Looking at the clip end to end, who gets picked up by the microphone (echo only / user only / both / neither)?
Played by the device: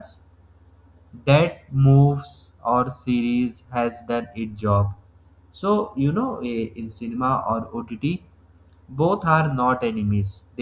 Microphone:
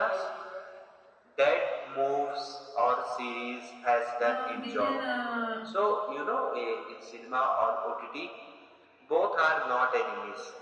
both